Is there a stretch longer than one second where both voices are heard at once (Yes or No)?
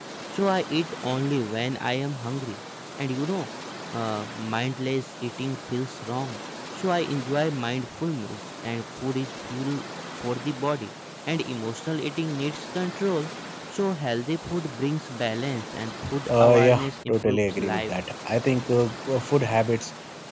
Yes